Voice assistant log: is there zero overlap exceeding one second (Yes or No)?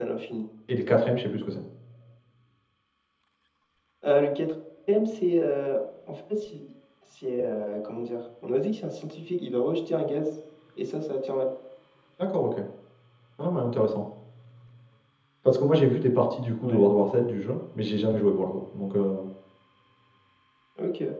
Yes